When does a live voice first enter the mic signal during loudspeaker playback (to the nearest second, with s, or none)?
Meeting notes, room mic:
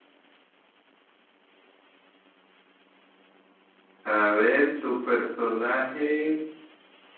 4 s